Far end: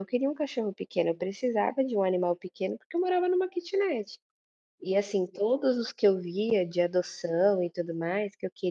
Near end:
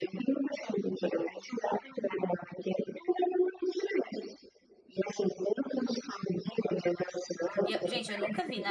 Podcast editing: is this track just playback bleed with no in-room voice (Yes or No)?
No